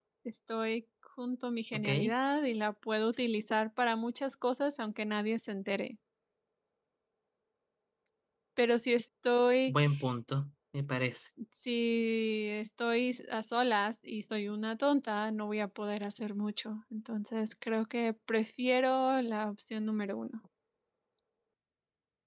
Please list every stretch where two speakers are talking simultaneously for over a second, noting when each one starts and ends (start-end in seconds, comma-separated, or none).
none